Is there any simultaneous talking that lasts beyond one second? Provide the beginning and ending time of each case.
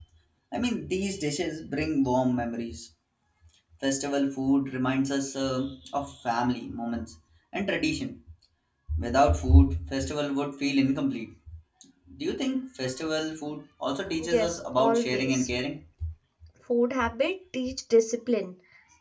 14.3-15.5

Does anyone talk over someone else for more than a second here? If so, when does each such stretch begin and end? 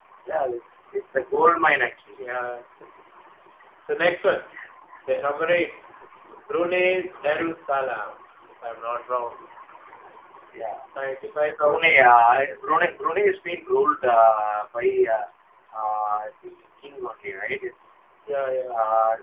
none

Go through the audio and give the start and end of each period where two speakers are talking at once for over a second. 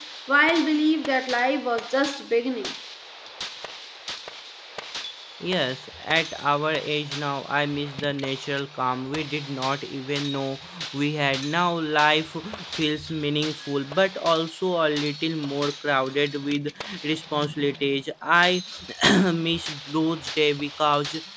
none

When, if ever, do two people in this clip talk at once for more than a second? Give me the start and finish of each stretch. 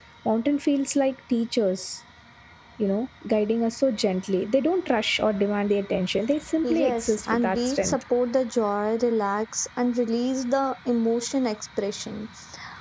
6.7-8.0

